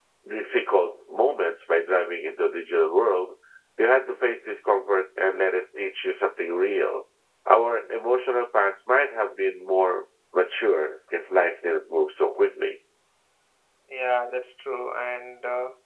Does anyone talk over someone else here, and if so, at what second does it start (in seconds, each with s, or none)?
none